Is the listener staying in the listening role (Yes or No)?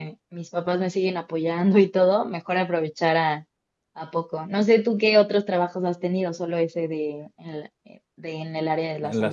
No